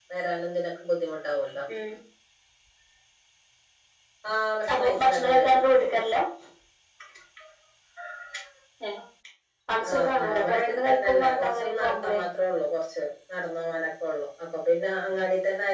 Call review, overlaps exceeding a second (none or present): present